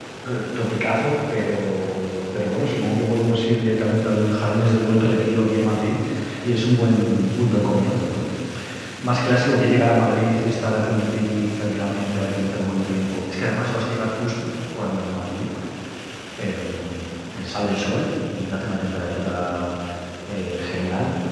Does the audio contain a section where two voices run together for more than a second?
No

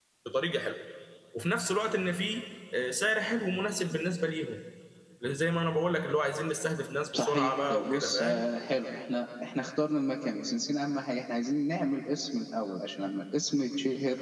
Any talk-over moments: Yes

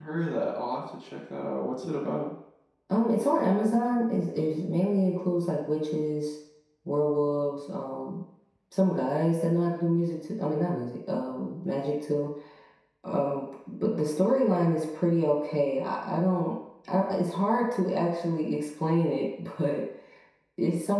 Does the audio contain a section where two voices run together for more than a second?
No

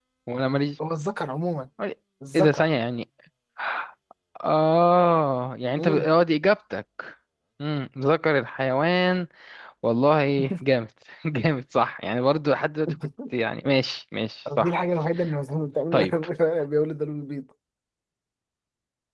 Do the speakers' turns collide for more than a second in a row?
No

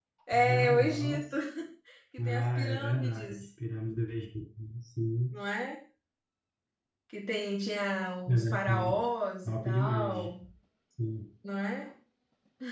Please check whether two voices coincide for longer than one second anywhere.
Yes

